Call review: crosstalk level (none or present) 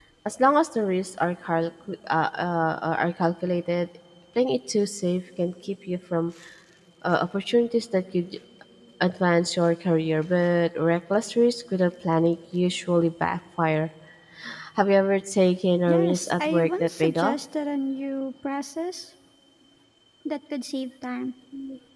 present